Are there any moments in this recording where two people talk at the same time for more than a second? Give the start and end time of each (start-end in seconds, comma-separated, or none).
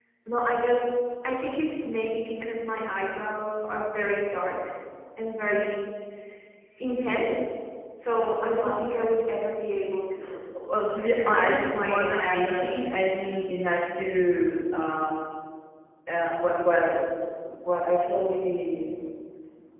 11.1-12.8